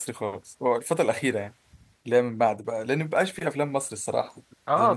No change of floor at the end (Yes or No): No